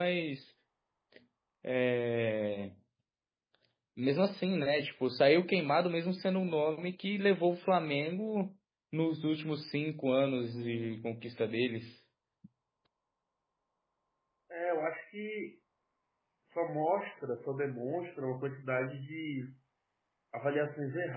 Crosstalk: none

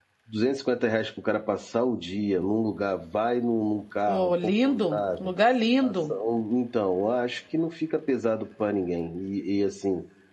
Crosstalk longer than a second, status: present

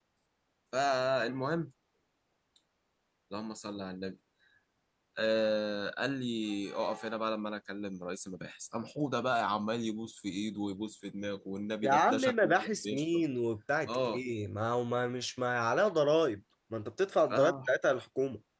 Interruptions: present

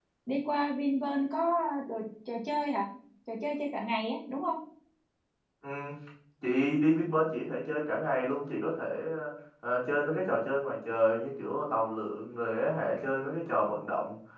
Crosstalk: none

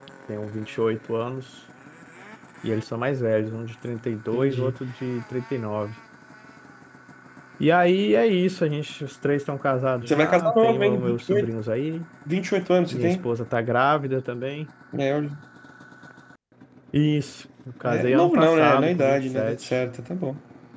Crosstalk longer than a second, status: present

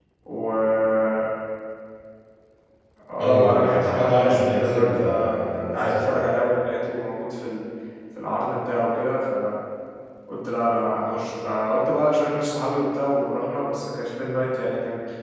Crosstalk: present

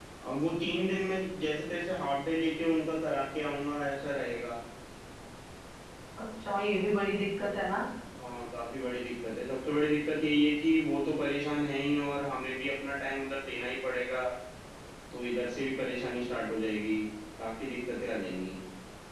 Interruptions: none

